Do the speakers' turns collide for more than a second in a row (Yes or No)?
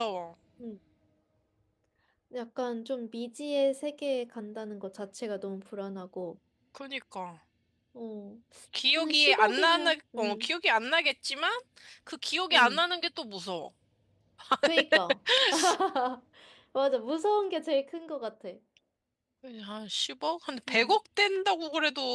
Yes